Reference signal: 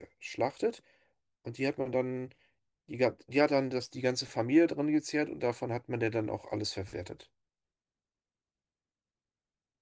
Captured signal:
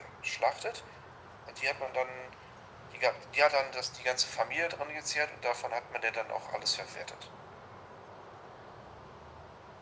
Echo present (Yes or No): Yes